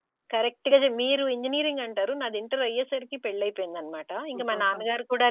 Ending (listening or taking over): listening